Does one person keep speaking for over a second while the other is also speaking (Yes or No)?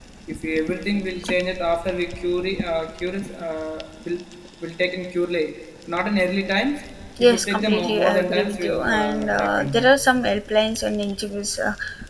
Yes